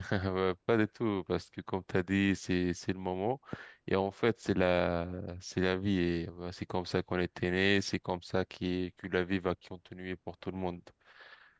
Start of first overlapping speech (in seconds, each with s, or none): none